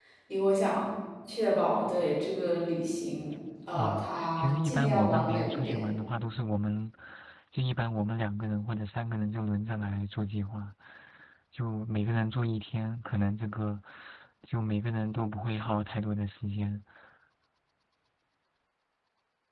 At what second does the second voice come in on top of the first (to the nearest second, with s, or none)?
4 s